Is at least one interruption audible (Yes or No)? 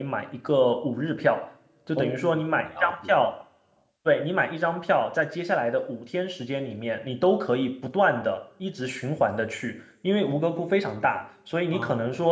Yes